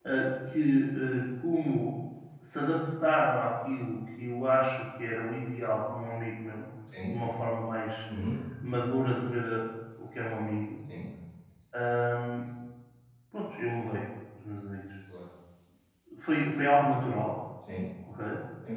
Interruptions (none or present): none